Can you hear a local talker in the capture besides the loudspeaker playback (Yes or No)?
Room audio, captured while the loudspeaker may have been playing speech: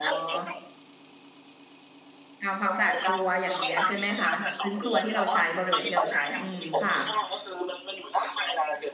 Yes